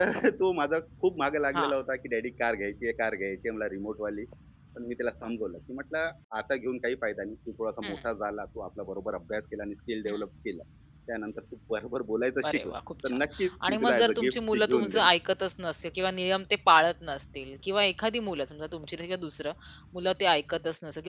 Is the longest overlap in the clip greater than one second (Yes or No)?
Yes